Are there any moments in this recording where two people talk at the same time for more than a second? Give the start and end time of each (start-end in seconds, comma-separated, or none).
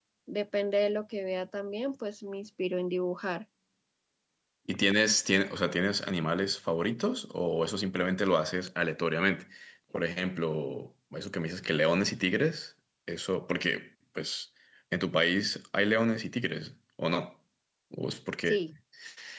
none